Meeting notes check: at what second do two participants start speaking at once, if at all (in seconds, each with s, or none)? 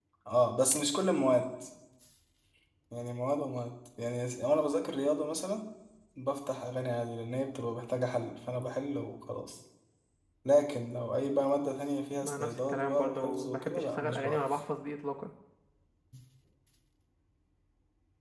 12.2 s